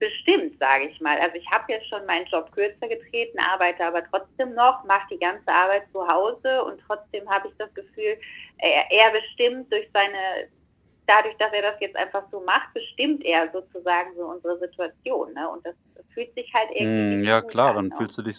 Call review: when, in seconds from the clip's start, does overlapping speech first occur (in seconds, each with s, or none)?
16.8 s